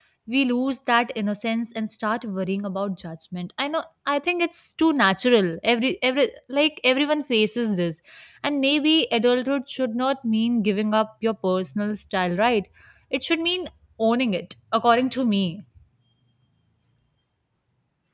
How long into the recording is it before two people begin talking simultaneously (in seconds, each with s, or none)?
none